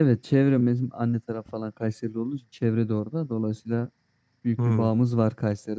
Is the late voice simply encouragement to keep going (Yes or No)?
Yes